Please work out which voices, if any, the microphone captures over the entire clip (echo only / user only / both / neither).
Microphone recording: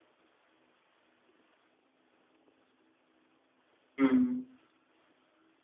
user only